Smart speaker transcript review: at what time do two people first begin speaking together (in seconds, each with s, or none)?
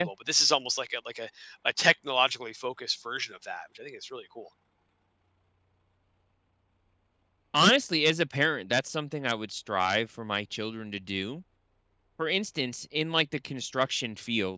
none